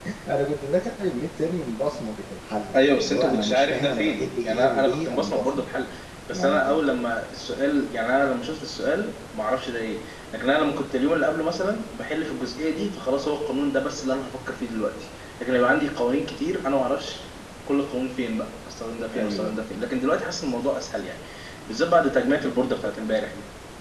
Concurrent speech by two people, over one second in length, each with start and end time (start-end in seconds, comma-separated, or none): 2.7-5.7